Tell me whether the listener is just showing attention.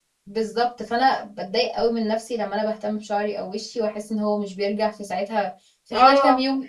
No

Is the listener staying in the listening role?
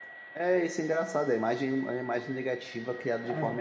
Yes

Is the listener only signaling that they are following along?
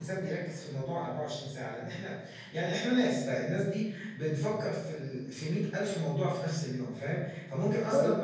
Yes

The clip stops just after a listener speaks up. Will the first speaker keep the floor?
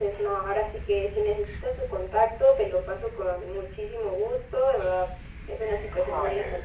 Yes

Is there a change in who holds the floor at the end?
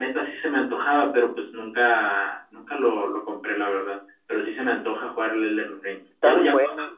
Yes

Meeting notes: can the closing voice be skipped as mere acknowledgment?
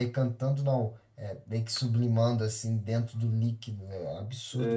No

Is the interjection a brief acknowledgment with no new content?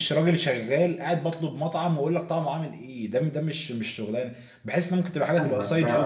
No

